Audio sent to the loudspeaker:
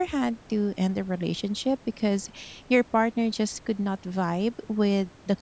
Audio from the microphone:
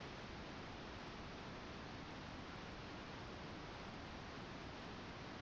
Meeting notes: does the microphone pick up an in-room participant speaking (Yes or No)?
No